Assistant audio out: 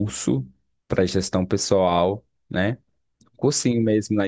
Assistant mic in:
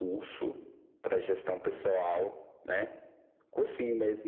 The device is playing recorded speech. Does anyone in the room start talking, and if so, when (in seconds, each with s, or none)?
none